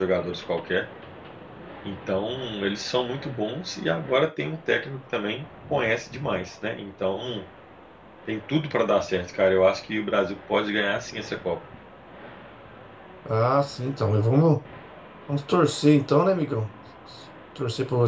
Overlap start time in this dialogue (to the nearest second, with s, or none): none